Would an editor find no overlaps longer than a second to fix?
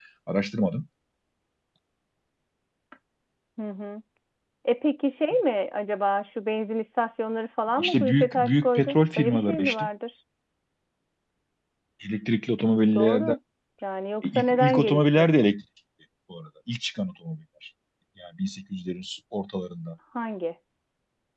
No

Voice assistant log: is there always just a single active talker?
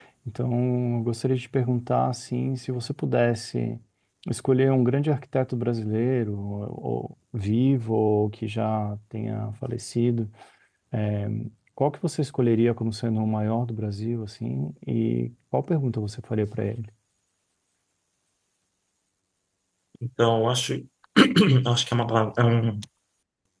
Yes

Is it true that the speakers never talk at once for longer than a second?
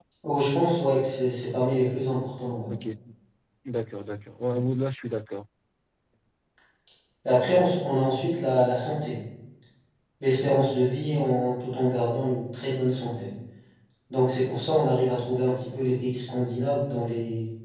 Yes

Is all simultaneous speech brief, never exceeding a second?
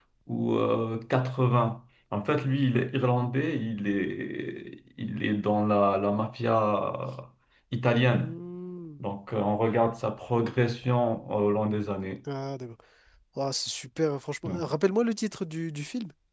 Yes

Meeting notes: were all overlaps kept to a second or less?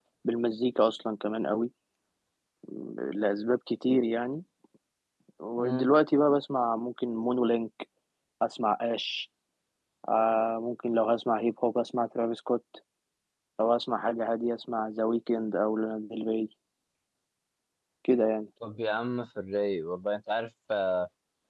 Yes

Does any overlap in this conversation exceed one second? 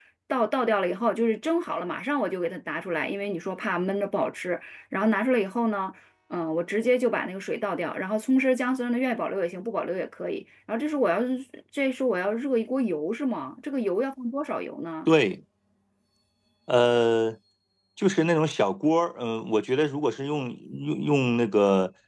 No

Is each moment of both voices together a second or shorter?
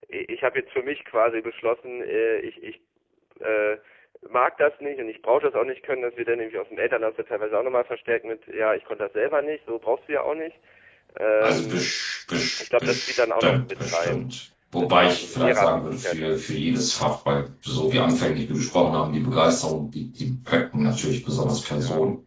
No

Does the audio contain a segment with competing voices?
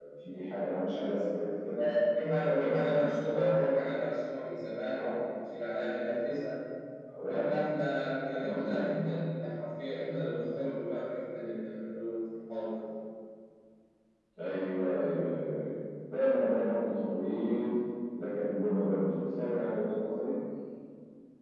Yes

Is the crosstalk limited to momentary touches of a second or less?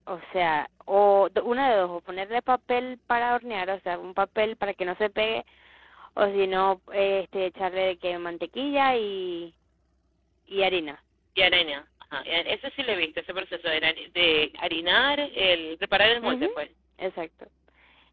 Yes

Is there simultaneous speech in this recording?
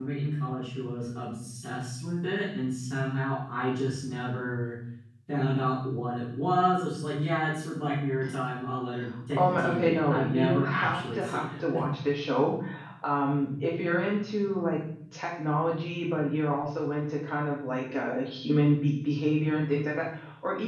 Yes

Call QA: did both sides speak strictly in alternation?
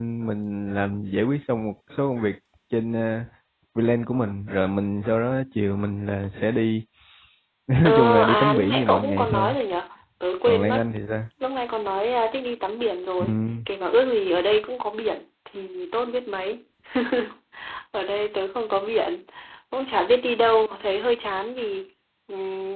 No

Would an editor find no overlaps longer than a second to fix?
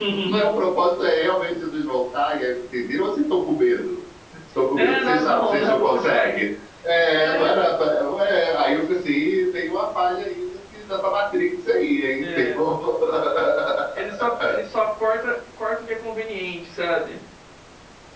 No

